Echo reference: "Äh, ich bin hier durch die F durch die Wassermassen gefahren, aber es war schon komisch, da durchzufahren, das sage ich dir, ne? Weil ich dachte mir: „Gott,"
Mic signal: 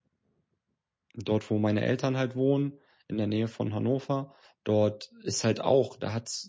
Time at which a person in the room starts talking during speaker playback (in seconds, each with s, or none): 1.1 s